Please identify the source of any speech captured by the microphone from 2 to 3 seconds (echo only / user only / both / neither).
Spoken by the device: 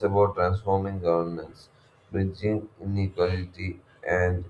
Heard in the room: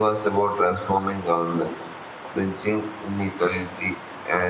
echo only